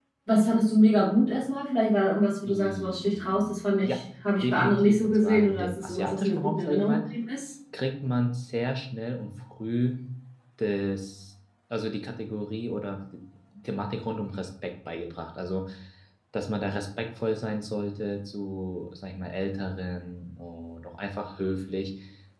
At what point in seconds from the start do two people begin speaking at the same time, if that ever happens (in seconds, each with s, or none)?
2.5 s